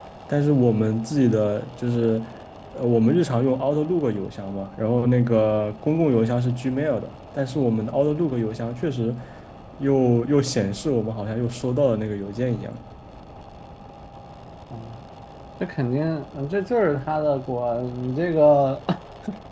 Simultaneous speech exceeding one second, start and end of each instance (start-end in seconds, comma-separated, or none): none